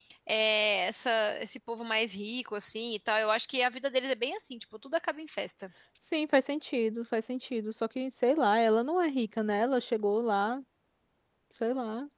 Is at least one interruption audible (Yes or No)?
No